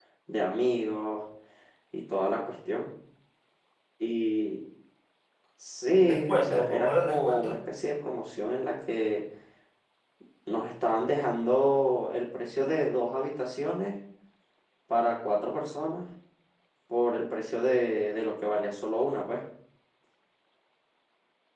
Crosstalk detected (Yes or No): Yes